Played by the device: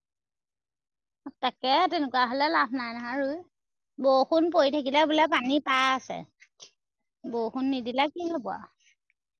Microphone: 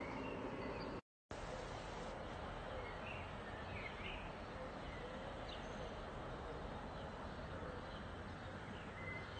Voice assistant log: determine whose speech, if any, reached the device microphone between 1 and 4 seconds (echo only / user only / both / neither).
neither